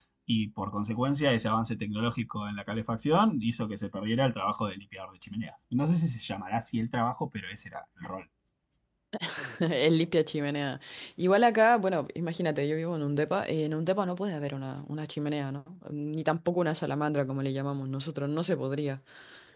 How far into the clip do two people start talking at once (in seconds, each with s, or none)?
none